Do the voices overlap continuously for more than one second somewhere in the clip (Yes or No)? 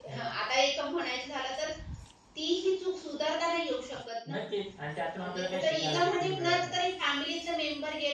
Yes